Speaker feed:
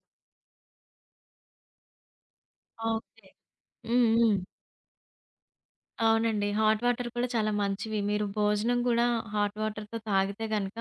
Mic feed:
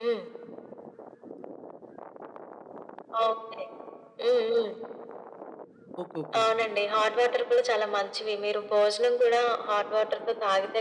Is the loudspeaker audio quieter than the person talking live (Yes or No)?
No